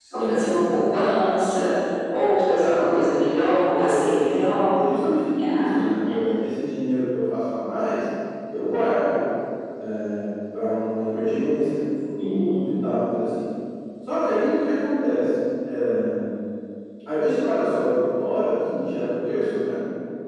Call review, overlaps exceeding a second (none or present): present